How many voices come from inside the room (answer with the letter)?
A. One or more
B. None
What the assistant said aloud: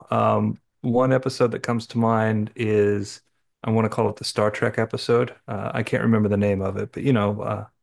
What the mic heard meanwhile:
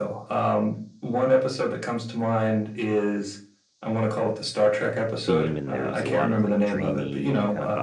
A